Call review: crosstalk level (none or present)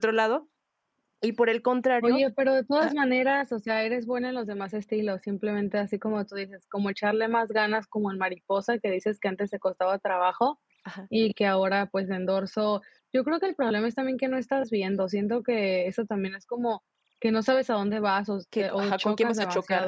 present